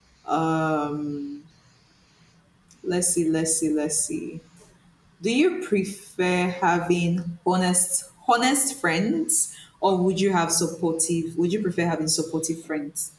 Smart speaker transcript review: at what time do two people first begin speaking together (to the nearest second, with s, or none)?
none